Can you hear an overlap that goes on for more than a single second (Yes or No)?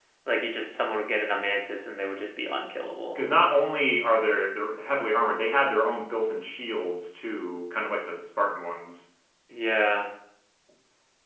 No